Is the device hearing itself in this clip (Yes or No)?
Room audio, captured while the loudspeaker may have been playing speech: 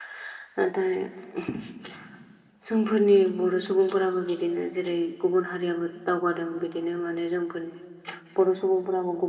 No